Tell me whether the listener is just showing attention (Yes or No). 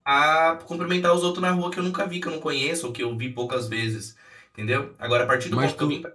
Yes